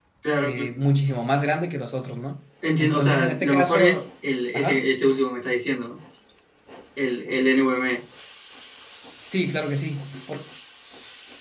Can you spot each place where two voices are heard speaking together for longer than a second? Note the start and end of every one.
2.8-4.0

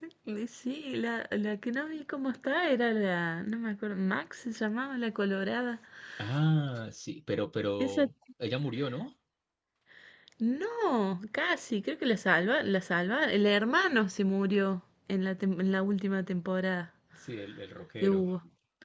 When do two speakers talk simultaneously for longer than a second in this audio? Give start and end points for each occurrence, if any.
none

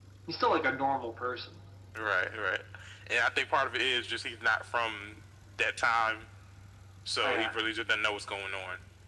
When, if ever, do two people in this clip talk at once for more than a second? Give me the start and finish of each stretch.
none

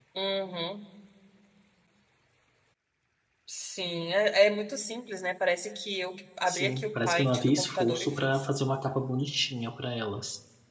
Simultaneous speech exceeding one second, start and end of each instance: 6.5-8.4

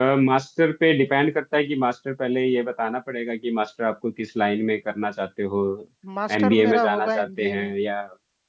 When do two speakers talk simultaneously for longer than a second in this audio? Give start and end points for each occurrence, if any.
6.4-7.7

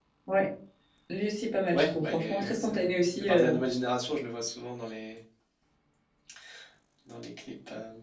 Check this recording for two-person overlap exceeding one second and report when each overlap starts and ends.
1.7-3.5

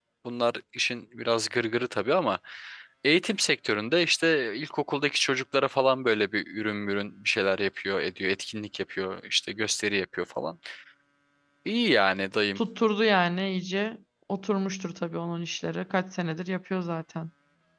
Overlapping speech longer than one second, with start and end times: none

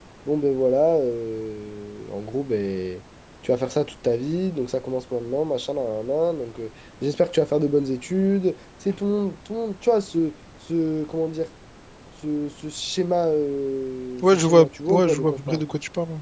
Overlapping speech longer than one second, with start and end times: 14.2-15.6

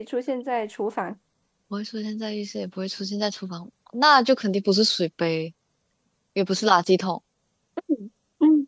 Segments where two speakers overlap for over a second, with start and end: none

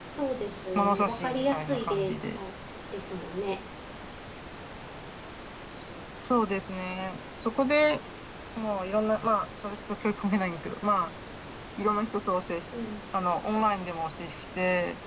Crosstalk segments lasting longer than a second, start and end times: 0.8-2.4

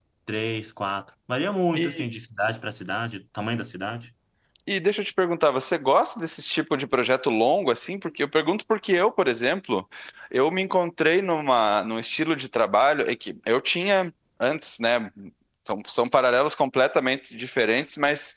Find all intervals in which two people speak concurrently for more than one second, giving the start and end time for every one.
none

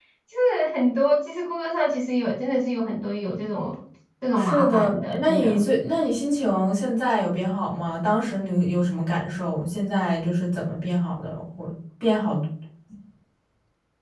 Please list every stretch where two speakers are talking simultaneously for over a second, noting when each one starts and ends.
4.4-5.6

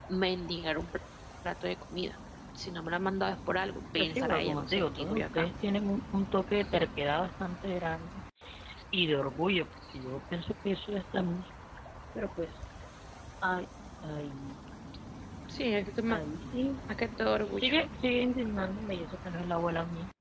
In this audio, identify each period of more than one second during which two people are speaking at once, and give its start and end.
4.0-5.5

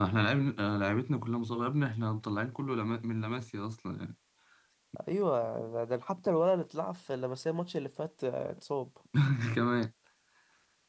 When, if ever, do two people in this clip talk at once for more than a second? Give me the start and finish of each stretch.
none

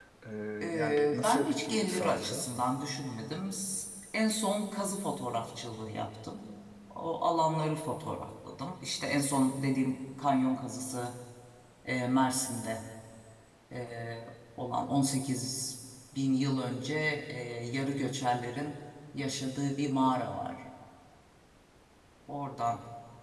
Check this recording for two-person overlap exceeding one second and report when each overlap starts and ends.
0.8-2.4

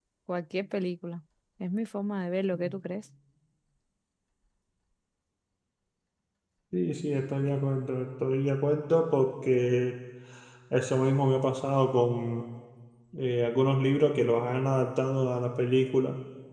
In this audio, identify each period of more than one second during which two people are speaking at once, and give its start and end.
none

